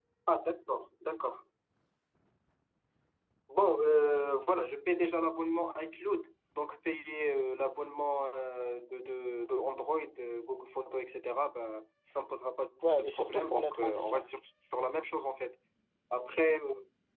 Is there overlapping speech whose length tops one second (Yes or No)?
Yes